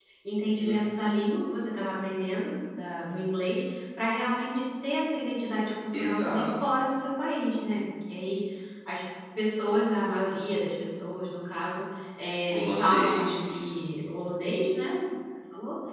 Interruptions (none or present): present